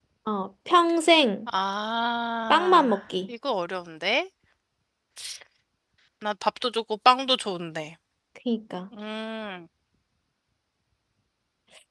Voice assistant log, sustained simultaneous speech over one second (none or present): none